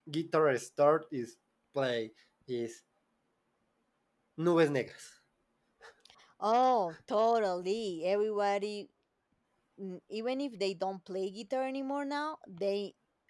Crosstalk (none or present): none